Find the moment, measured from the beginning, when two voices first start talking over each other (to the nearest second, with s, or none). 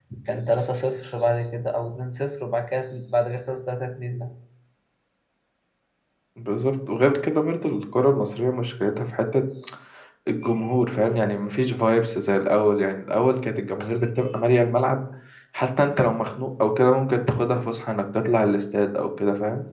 none